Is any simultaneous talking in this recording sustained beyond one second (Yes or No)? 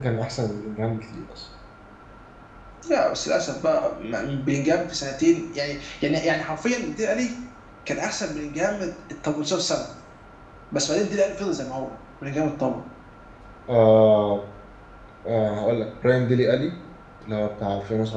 No